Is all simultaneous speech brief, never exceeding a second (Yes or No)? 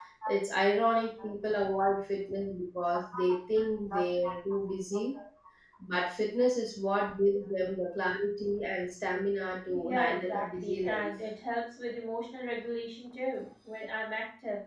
No